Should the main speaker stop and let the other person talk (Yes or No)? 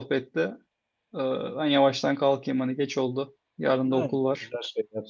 Yes